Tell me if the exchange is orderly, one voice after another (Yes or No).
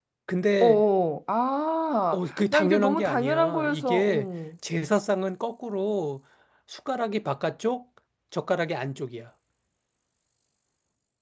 No